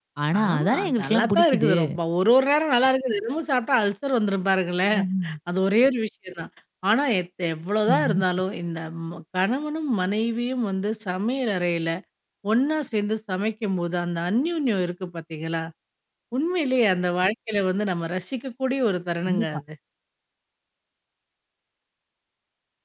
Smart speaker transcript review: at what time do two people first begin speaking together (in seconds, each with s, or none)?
0.5 s